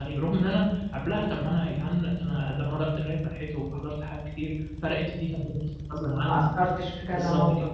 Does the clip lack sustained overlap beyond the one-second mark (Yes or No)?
Yes